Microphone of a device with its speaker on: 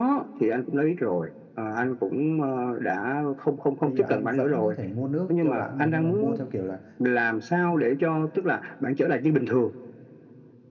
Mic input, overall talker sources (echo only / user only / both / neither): both